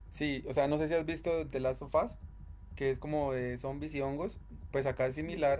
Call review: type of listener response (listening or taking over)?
listening